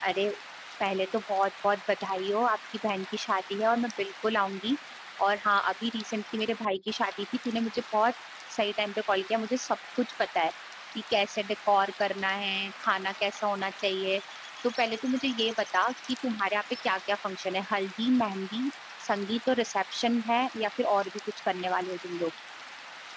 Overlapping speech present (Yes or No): No